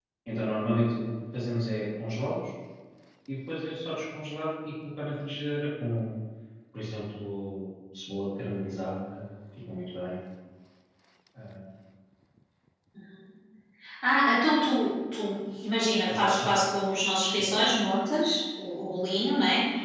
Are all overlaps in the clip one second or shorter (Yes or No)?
Yes